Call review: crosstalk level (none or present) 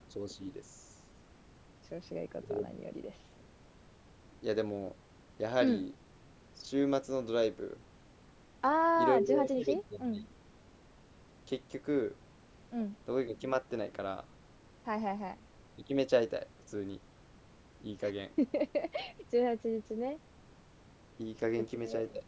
present